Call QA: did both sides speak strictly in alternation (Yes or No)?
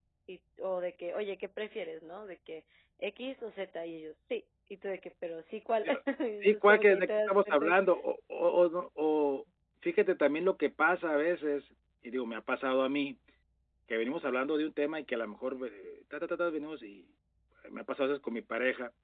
No